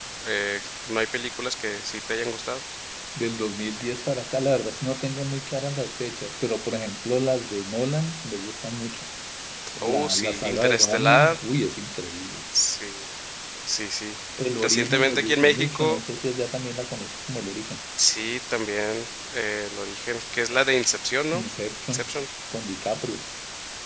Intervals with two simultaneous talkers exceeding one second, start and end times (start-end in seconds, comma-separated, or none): 9.9-11.4, 14.6-16.0